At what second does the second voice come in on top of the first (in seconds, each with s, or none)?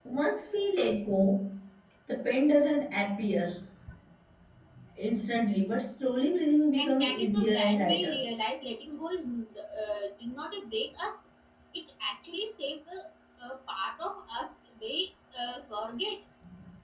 6.8 s